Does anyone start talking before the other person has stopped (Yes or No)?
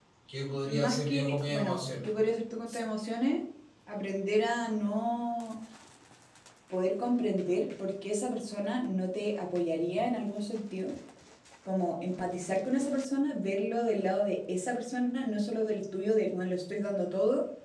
Yes